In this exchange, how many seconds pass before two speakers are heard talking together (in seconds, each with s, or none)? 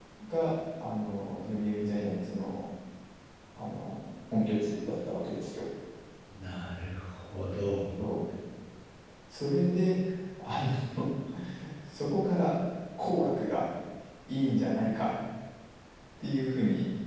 none